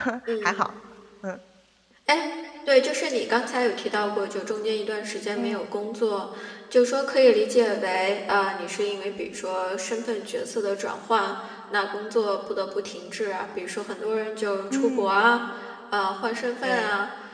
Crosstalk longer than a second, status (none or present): none